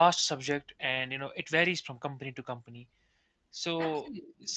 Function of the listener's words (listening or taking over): listening